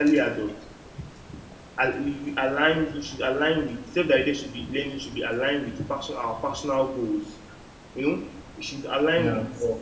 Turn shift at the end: No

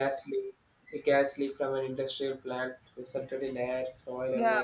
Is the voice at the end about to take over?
No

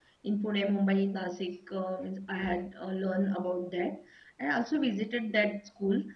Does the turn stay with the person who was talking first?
Yes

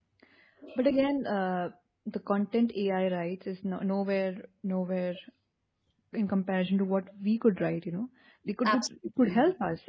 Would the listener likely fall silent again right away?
Yes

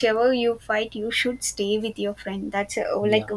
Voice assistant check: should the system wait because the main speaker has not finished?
Yes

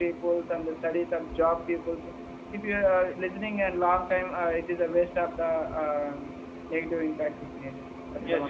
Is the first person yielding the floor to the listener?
Yes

